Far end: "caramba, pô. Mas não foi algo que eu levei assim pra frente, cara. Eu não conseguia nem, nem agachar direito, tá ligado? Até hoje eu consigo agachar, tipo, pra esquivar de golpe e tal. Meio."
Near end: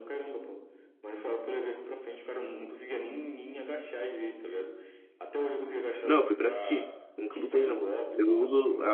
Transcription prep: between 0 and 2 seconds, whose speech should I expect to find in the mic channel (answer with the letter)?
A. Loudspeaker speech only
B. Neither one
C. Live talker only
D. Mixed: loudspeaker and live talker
A